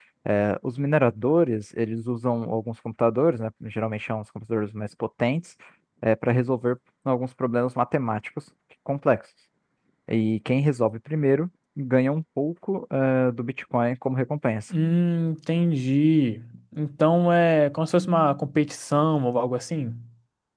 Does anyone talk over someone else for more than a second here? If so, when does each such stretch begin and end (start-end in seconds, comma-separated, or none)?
none